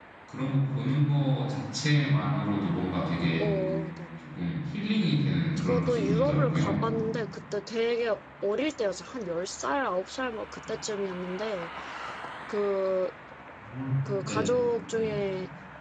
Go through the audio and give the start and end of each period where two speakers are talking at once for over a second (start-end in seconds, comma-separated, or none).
5.6-6.8